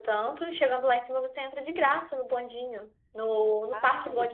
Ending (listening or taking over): listening